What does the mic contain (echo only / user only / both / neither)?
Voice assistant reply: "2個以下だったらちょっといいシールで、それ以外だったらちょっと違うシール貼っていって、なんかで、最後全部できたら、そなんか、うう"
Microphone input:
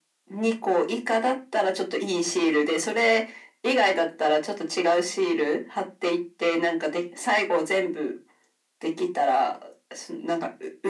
echo only